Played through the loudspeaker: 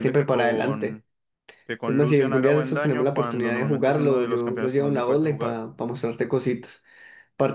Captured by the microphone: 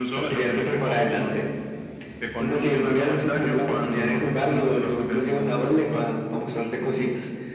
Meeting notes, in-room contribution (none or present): none